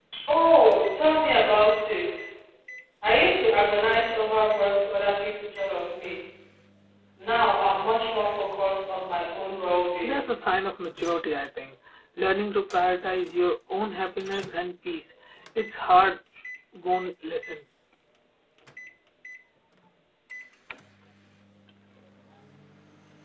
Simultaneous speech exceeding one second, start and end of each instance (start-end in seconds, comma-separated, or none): none